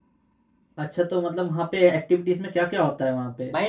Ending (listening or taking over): taking over